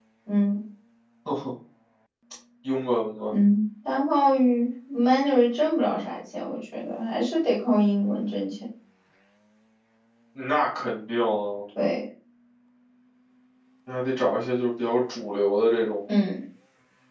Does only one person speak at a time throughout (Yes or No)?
Yes